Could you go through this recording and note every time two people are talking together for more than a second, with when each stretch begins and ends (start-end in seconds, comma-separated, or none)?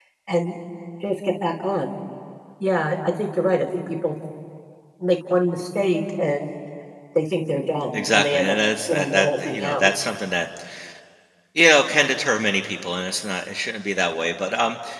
7.9-9.9